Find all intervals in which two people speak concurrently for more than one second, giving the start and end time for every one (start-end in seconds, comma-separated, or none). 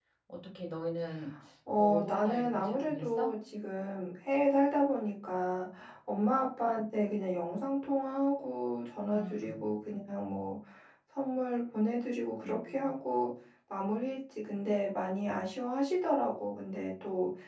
1.8-3.3